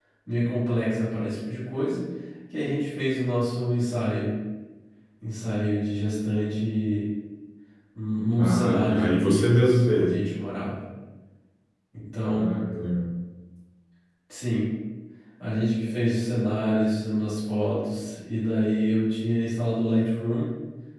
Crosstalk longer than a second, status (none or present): present